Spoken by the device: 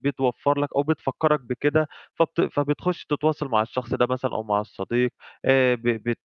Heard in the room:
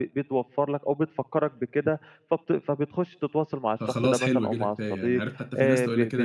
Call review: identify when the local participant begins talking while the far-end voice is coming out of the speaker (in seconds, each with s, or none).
3.8 s